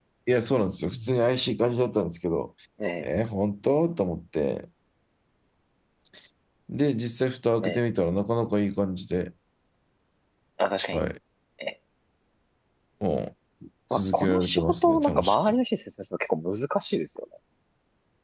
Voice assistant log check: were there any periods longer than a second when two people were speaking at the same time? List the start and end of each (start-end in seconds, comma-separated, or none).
13.9-15.6